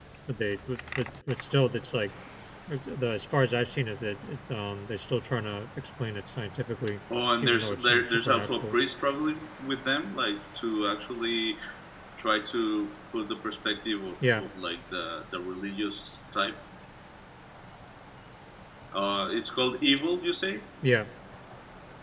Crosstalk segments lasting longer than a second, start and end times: 7.4-8.8

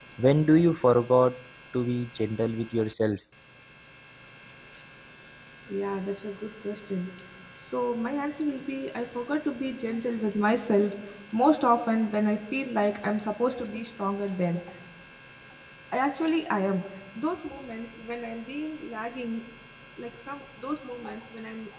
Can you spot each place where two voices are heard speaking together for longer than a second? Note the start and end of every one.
none

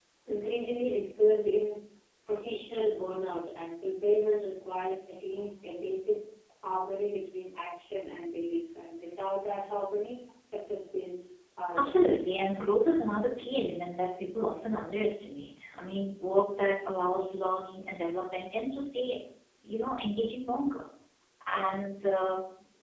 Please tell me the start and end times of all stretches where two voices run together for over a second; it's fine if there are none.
none

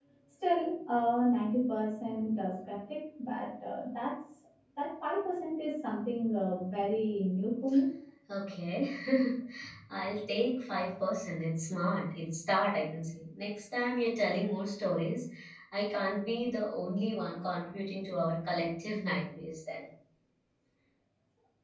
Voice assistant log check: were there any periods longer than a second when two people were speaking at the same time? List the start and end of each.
none

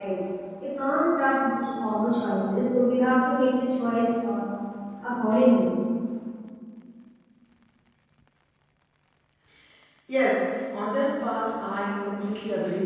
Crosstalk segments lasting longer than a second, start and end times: none

